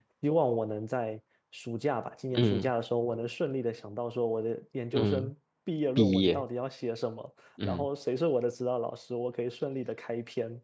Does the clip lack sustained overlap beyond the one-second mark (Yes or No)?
Yes